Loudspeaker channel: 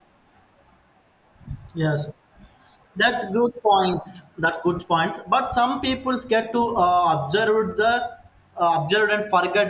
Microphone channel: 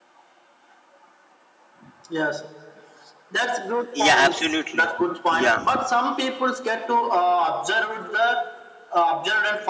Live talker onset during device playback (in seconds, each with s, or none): 3.9 s